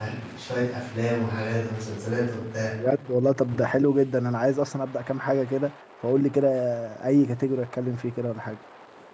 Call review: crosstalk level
none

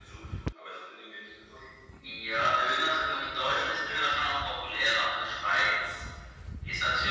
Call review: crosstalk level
none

